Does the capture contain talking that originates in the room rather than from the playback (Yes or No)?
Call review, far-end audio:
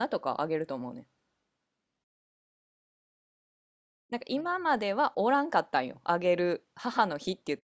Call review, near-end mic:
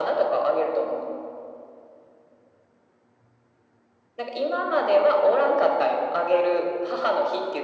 No